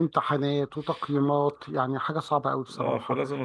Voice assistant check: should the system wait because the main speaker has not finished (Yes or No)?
No